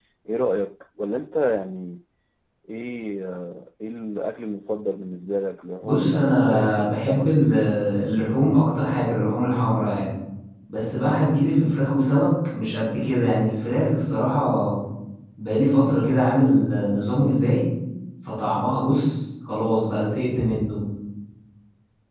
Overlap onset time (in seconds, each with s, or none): 5.8 s